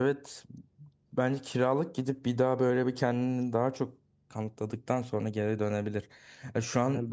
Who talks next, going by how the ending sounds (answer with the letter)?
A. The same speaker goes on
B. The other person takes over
A